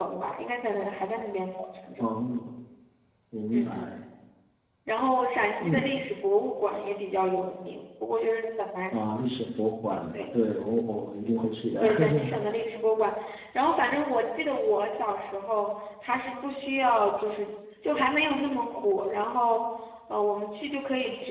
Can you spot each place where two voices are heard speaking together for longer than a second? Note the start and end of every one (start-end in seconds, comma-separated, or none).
none